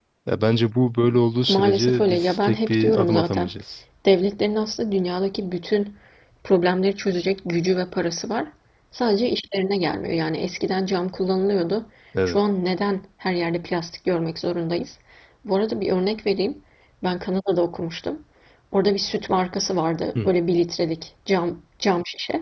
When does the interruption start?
1.5 s

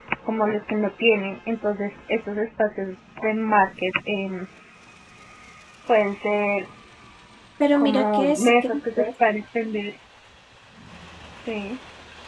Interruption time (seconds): 7.7 s

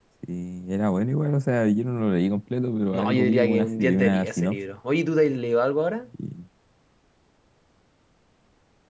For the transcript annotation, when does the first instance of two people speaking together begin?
2.9 s

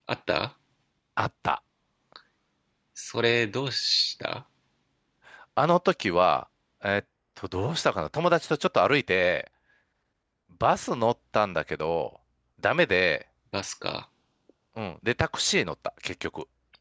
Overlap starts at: none

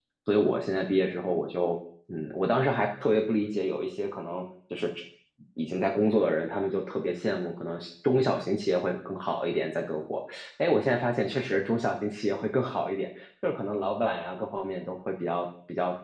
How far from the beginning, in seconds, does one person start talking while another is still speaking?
none

